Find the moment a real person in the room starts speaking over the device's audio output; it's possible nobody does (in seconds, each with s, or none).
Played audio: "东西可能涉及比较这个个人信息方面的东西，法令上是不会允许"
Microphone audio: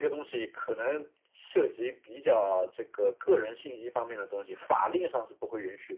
none